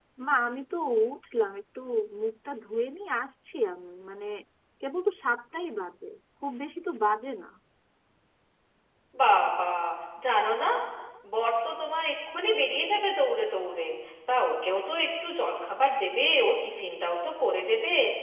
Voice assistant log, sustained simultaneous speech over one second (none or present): none